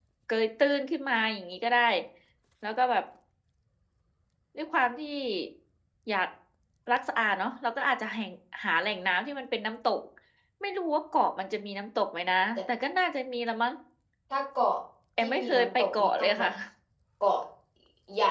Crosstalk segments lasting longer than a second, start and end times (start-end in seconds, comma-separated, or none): 15.2-16.5